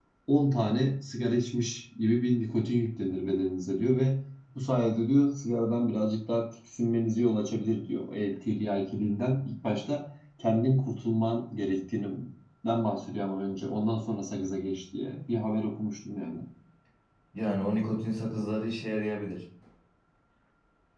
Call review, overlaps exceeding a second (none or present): none